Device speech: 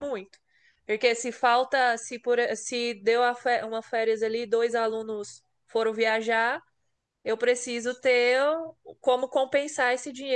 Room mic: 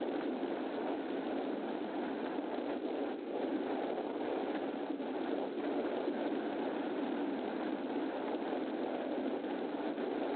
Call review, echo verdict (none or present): none